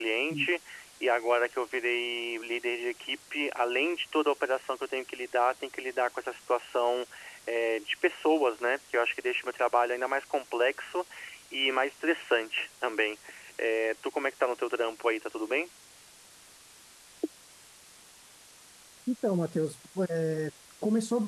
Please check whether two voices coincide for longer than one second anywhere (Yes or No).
No